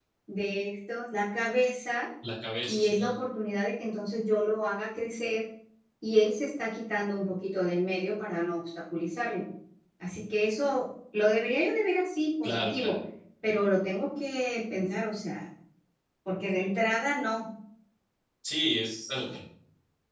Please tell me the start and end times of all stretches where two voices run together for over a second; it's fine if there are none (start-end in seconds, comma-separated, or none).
none